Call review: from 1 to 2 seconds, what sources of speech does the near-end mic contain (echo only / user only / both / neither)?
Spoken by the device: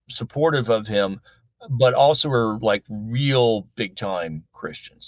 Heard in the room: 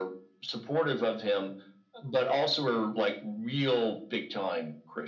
echo only